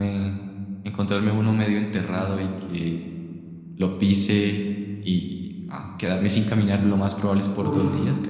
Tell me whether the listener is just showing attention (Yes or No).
Yes